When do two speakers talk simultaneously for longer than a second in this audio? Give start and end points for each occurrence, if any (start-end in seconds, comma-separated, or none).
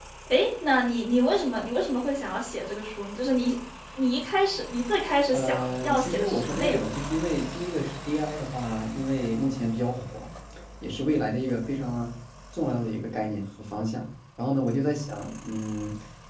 5.3-7.0